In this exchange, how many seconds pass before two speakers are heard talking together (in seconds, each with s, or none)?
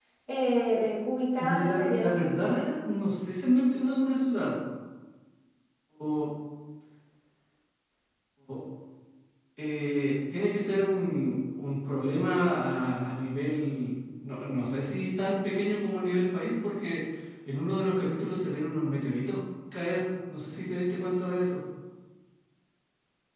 1.4 s